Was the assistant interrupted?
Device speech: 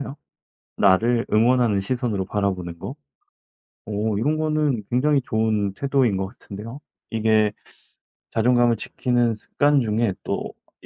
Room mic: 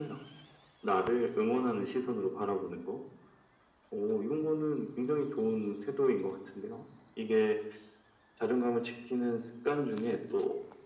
No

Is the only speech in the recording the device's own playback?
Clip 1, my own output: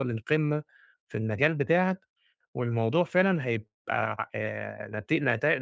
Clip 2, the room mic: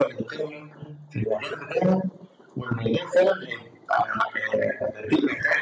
Yes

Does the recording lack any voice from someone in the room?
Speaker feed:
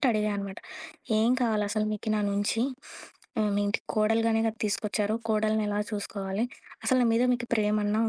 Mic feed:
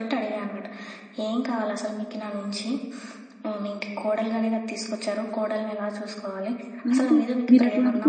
No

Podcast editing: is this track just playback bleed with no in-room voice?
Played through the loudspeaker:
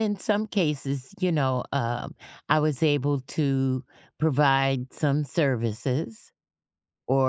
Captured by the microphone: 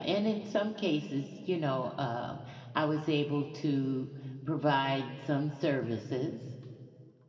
Yes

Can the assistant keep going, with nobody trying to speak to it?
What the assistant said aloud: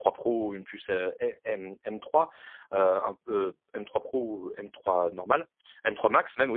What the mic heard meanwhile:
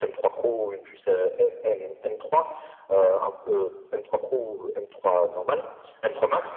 Yes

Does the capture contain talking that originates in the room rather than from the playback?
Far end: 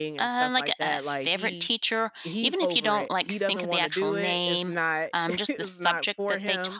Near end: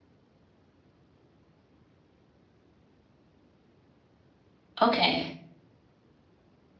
Yes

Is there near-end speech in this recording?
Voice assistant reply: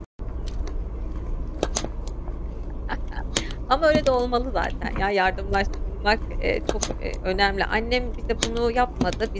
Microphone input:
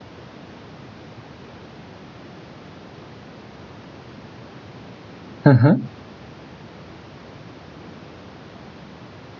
Yes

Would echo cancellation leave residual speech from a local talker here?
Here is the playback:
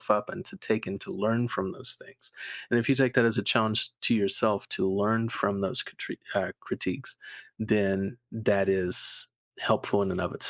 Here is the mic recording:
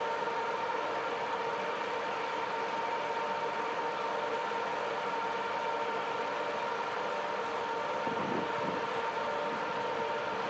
No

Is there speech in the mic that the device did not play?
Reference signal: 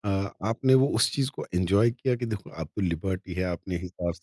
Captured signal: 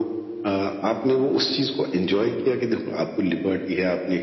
No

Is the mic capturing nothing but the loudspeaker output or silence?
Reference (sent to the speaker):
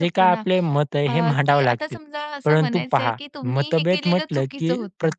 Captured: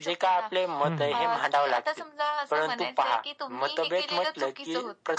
No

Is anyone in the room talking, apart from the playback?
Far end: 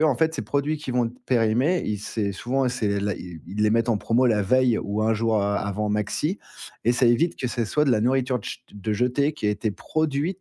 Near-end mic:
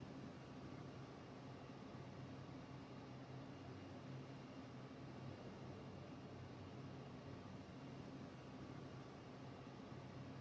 No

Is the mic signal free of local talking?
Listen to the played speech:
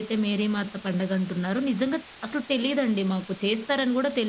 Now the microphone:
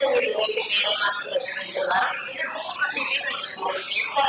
Yes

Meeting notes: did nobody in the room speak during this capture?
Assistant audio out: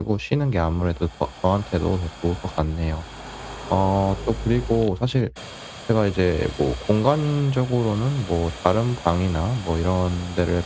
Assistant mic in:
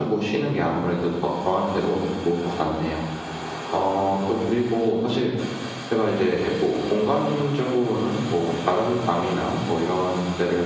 Yes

